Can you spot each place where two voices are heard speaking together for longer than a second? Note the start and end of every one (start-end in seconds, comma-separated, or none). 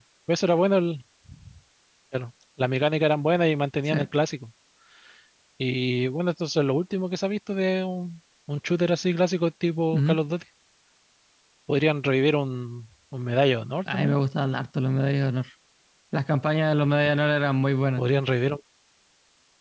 none